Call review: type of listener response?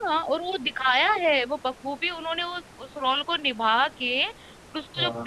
listening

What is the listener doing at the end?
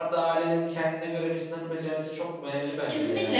taking over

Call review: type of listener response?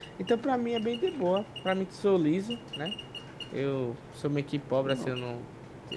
listening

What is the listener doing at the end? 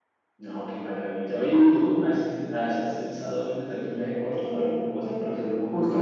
taking over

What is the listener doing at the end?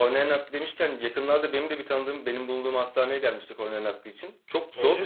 listening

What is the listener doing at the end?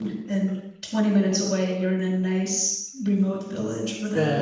taking over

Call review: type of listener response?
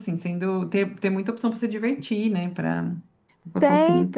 taking over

